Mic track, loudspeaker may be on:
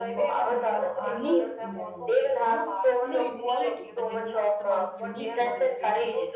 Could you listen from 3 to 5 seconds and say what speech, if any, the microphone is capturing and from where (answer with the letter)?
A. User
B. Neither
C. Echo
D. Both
D